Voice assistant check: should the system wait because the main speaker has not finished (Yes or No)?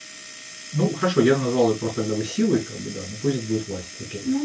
No